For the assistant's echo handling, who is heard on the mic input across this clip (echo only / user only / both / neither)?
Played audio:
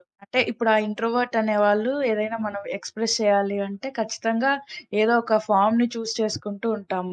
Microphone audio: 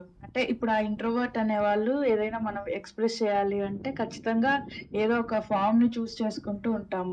echo only